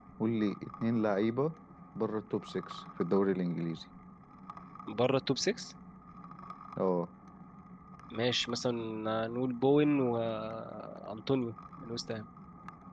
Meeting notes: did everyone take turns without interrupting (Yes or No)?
Yes